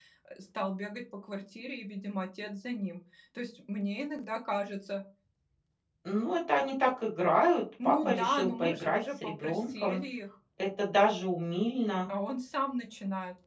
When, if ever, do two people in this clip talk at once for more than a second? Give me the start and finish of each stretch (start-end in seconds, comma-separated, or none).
7.8-10.0